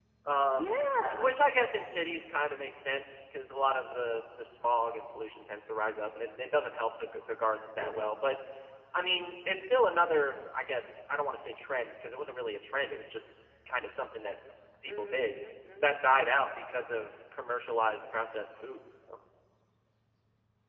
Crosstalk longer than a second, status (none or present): none